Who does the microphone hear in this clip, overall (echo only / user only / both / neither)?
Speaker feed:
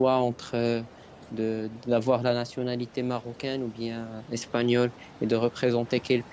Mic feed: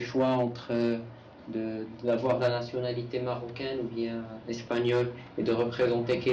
echo only